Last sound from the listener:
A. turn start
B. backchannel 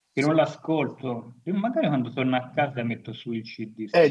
A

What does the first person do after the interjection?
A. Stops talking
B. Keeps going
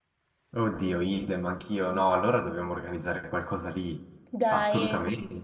A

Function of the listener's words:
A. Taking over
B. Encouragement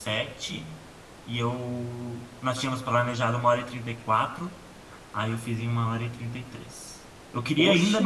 B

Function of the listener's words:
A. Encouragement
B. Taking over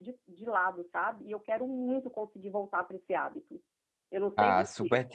B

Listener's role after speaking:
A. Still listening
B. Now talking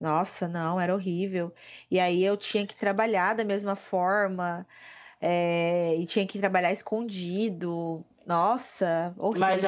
B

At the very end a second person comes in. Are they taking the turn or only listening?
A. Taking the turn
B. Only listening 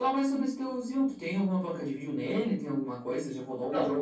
A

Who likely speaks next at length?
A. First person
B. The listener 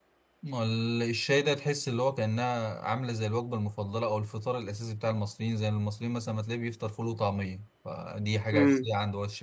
A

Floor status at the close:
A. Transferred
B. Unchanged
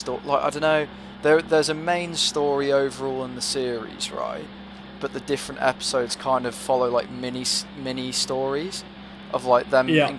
B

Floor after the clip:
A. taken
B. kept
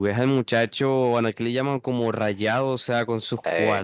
B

